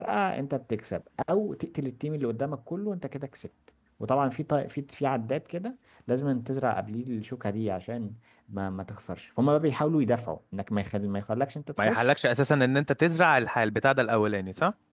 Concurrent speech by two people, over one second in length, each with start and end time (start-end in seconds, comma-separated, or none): none